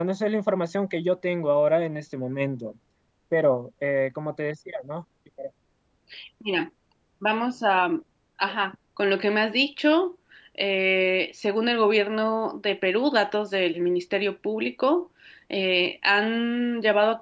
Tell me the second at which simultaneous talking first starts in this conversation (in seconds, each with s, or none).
none